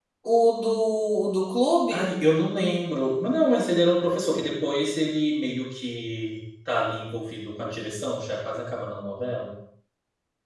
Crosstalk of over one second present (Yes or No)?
No